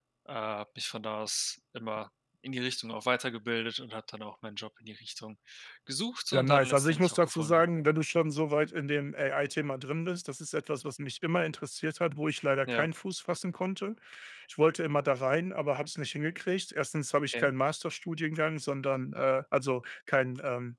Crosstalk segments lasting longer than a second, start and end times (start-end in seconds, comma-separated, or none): 6.3-7.6